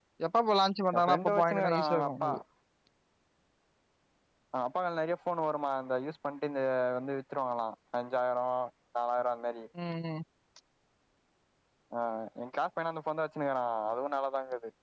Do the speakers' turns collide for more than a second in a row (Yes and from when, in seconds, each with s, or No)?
Yes, from 0.9 s